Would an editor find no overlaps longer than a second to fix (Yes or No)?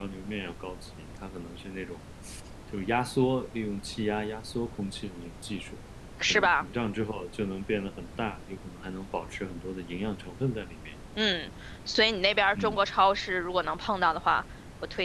Yes